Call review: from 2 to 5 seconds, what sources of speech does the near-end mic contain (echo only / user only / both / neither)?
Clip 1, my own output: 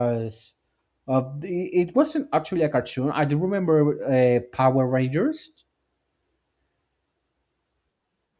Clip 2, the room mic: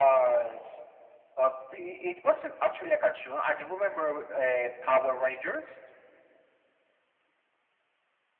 echo only